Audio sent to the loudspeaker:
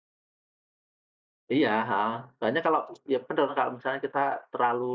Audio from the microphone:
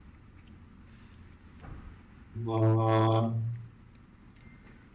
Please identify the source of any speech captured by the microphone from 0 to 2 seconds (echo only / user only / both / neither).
neither